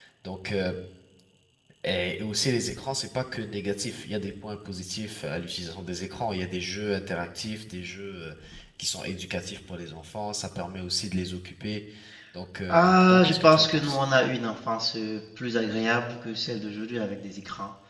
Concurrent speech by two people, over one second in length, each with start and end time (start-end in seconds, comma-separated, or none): 12.7-14.0